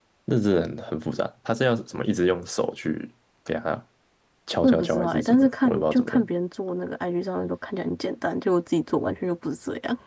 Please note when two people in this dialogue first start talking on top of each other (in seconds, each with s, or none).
4.6 s